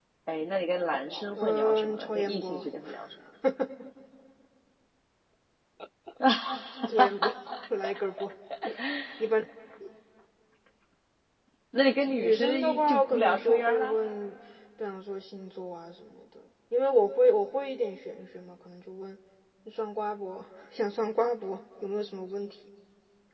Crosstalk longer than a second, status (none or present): present